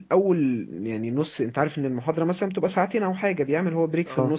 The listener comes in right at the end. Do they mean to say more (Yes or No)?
No